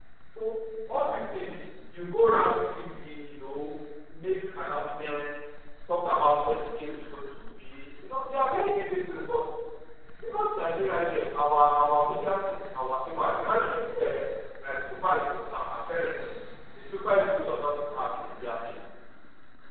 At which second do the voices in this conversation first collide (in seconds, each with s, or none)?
none